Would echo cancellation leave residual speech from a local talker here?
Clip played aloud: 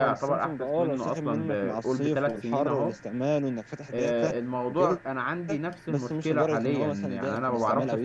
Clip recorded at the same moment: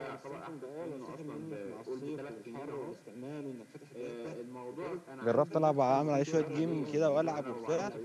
Yes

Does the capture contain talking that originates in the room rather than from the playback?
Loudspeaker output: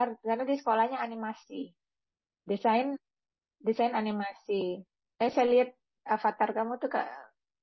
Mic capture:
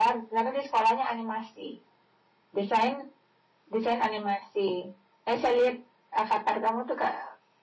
No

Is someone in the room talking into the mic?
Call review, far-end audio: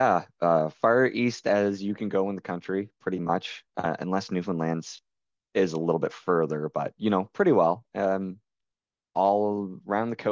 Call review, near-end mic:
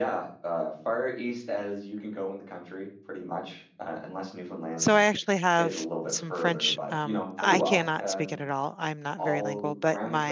Yes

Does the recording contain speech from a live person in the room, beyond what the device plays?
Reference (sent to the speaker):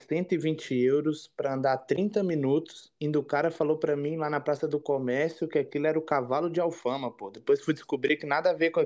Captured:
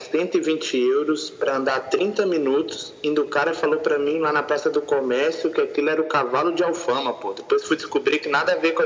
No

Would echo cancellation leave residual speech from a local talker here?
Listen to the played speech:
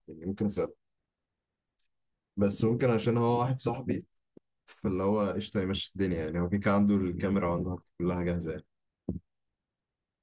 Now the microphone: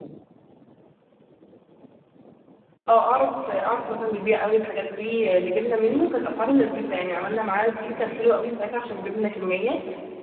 Yes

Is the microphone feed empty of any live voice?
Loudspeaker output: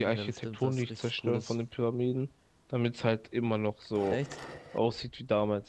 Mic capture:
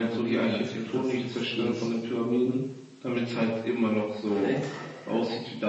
Yes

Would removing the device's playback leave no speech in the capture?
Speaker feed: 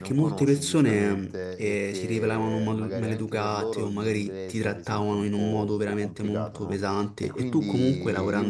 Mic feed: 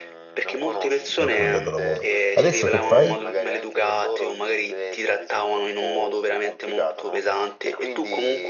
No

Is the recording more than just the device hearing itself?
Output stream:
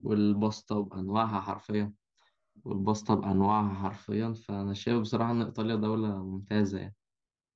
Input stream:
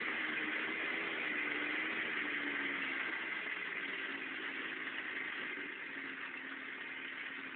No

